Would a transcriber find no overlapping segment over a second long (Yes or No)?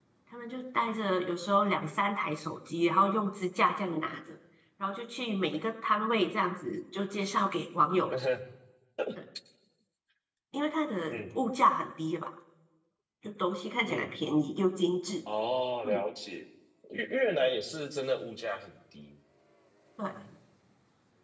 Yes